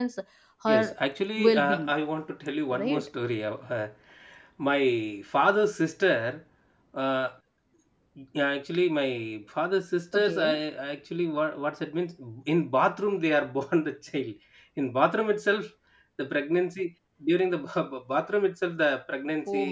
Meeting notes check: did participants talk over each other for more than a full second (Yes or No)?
No